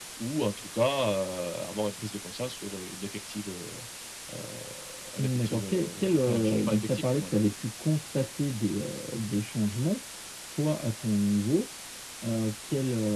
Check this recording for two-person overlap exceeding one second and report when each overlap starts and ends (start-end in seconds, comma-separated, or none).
5.2-7.2